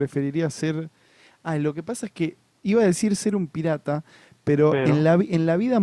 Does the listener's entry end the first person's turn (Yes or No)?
No